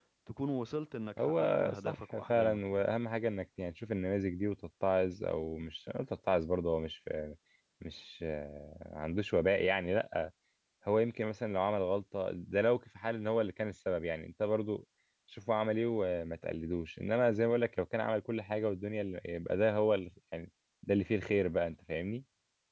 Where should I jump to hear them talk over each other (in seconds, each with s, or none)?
1.2 s